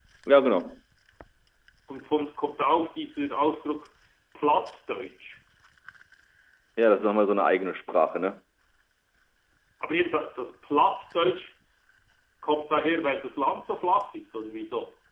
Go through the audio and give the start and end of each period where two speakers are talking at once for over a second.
none

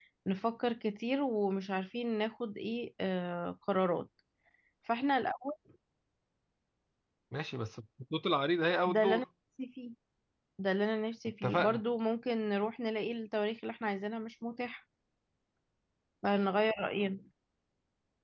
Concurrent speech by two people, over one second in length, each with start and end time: none

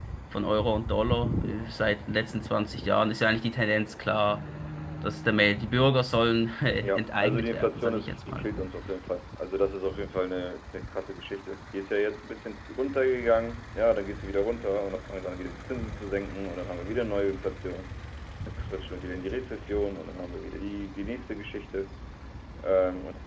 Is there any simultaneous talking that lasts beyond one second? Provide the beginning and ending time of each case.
6.8-8.5

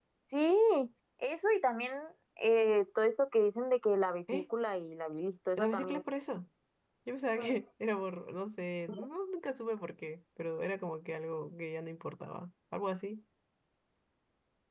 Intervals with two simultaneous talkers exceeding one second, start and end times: none

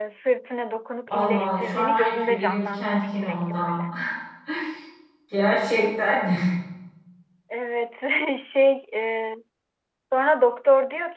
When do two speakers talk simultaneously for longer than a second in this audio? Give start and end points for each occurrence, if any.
1.1-3.8

